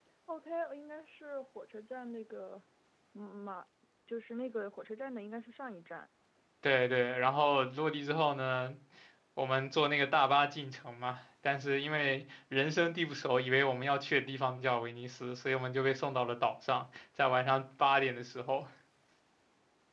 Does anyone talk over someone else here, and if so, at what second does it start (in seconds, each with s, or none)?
none